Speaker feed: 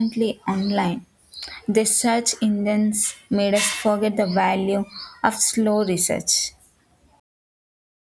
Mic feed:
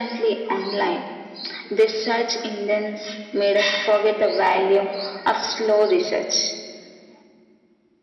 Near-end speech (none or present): none